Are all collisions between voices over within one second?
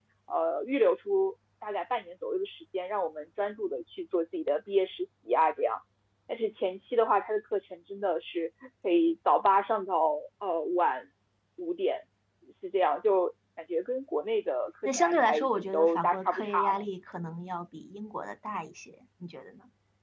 No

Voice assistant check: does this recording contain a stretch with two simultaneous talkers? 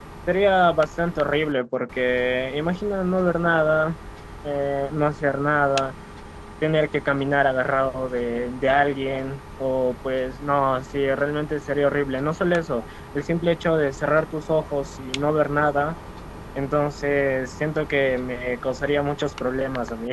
No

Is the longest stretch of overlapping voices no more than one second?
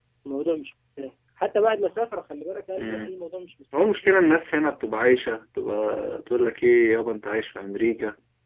Yes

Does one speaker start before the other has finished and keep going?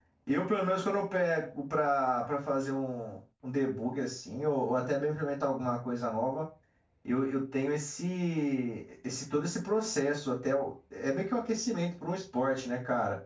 No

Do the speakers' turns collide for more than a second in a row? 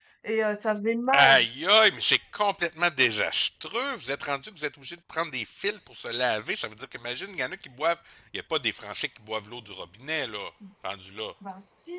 No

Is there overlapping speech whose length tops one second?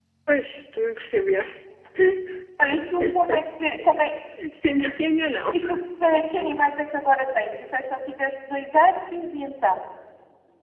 No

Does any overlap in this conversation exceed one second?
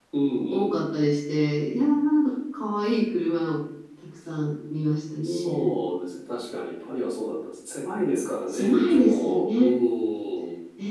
Yes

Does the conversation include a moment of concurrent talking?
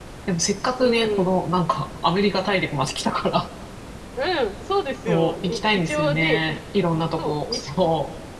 Yes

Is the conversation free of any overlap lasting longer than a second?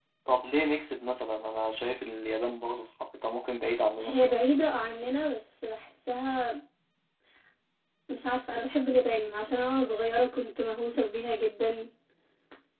Yes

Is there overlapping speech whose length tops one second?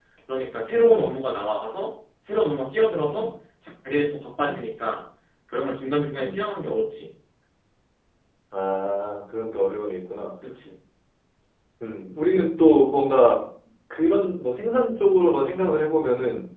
No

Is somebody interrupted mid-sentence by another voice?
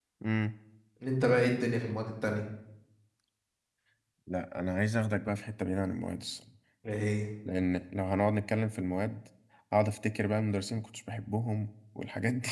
No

